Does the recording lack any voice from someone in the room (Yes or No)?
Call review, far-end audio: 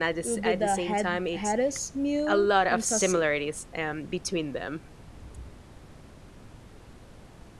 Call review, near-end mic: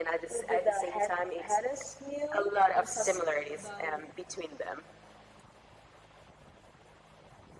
No